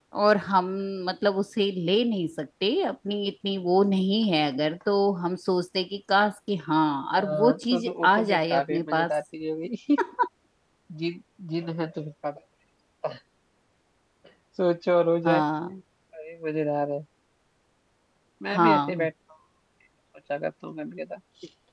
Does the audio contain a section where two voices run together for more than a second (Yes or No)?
Yes